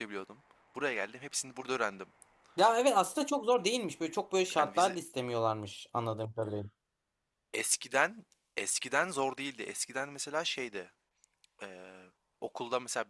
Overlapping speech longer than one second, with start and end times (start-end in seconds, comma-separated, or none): none